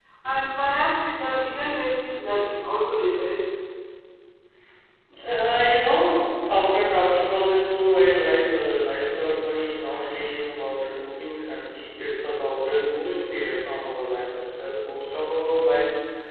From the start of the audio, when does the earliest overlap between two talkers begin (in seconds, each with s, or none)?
none